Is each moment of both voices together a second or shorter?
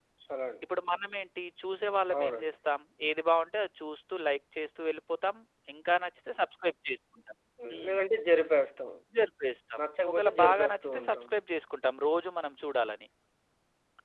No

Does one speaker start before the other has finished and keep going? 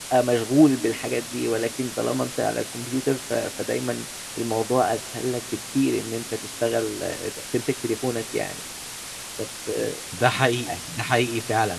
No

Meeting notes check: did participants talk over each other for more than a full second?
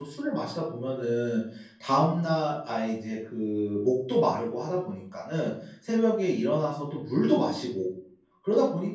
No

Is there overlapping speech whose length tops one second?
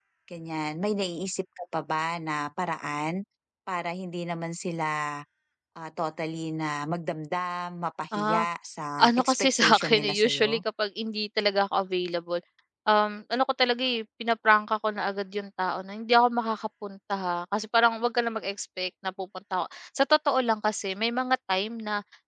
Yes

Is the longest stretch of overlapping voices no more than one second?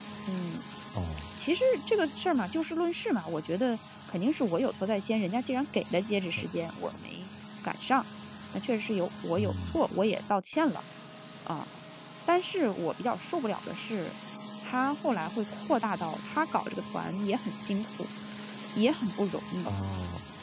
Yes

